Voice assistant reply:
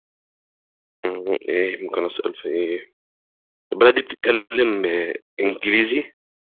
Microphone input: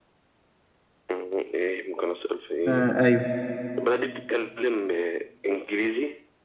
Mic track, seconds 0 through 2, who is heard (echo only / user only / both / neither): echo only